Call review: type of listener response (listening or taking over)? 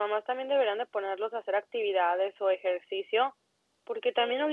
listening